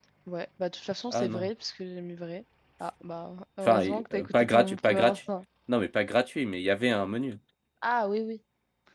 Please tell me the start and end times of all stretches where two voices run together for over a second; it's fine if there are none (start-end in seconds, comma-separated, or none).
3.6-5.2